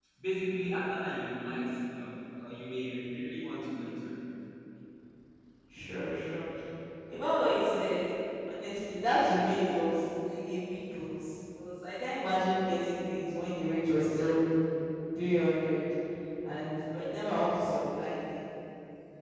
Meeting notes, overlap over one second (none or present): none